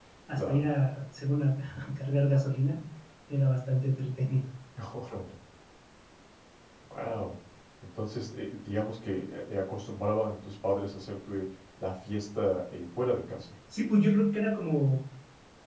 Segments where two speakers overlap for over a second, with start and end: none

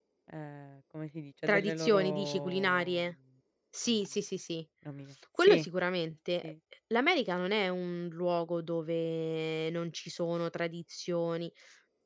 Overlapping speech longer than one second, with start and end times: 1.5-3.0

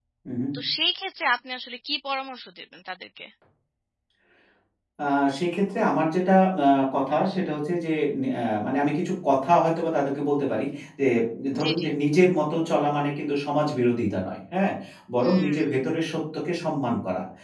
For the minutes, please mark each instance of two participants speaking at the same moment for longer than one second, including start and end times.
none

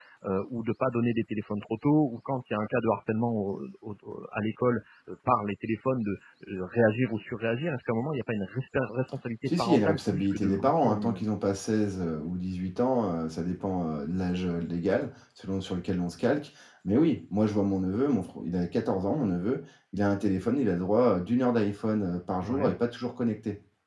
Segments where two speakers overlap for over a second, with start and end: 9.6-11.3

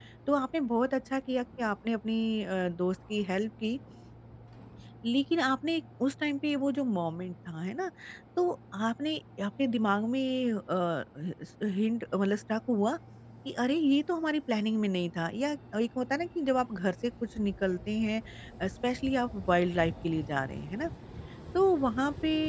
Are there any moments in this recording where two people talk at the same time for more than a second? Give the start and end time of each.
none

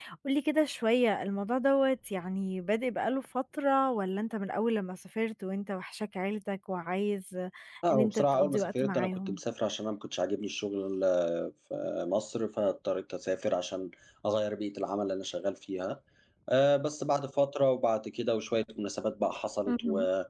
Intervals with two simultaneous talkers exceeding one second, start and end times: 7.9-9.4

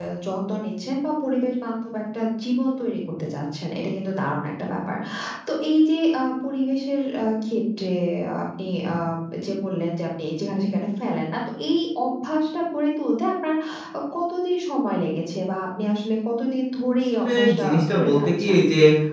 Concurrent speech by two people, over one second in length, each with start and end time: 17.1-18.6

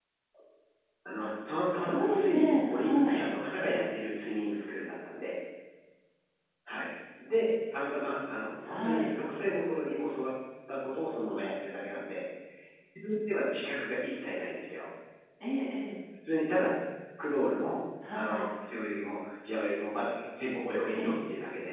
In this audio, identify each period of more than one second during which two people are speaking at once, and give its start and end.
1.7-3.2

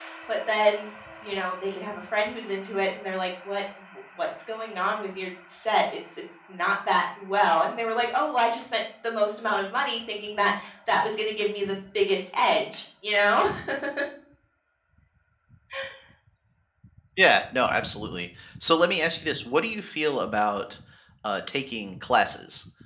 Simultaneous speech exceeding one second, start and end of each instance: none

